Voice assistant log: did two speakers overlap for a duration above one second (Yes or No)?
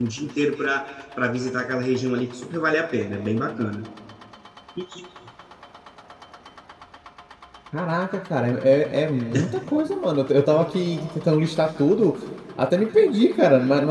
No